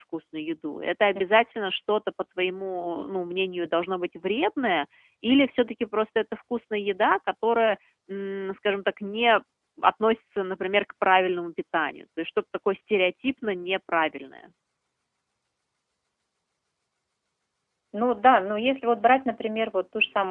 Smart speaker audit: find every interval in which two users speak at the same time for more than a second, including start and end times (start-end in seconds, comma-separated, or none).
none